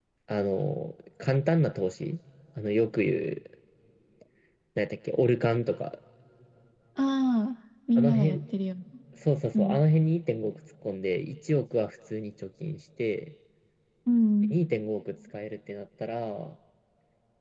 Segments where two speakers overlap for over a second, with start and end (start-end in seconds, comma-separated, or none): none